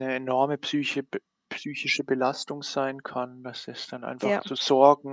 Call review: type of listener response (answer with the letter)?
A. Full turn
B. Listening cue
B